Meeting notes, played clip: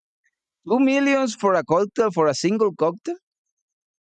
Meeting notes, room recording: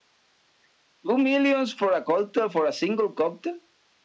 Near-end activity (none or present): none